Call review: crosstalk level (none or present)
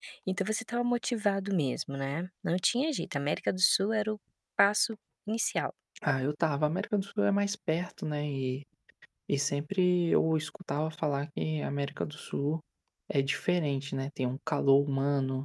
none